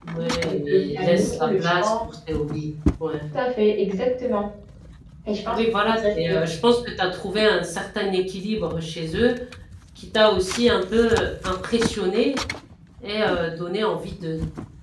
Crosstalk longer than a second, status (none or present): present